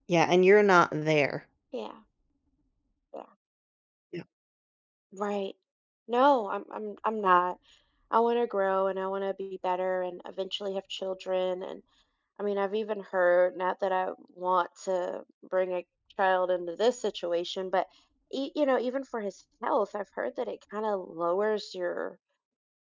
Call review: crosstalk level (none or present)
none